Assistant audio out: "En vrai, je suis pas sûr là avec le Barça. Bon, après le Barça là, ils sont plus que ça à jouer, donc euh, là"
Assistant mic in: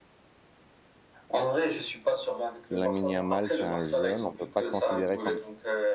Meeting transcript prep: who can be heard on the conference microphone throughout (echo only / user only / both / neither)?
both